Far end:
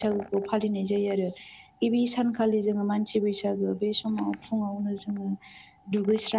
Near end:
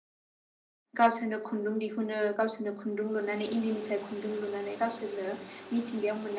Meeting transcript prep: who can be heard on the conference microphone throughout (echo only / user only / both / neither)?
user only